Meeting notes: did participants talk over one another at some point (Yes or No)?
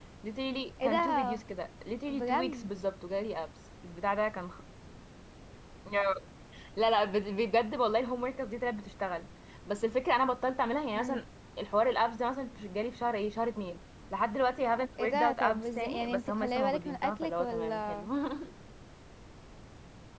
Yes